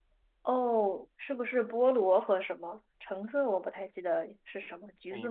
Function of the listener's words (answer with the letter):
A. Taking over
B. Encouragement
A